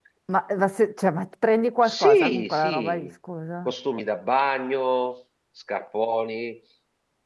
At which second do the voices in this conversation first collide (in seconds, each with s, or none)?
1.8 s